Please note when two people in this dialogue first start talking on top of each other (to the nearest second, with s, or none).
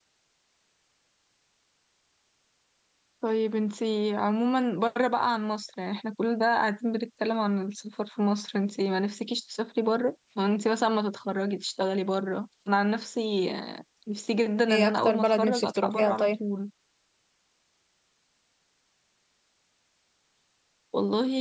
15 s